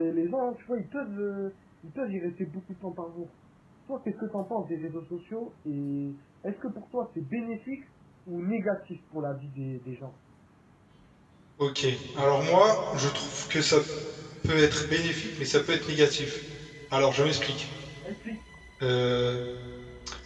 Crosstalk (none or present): none